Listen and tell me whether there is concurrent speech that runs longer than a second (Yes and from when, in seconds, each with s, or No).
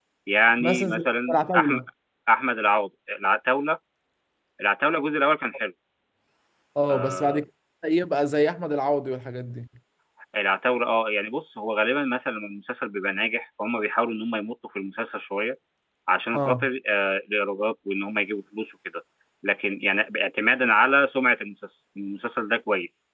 Yes, from 0.6 s